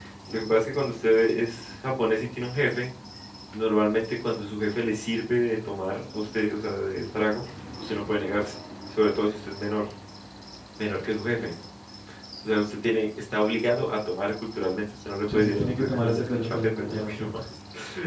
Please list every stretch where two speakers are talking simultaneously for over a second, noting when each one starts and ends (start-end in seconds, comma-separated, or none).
15.2-17.3